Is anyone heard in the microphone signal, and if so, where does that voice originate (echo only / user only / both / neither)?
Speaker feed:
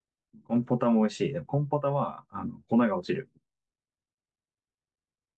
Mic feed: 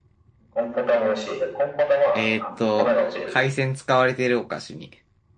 both